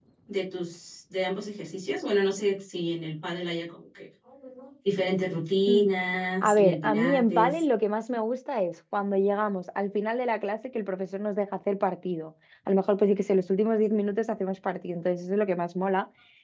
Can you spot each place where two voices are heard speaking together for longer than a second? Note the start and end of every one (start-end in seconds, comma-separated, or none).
6.4-7.6